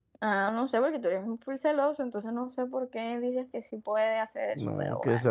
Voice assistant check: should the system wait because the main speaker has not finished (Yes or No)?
No